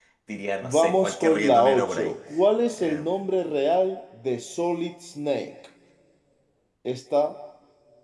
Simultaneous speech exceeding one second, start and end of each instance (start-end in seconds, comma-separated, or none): 0.6-2.1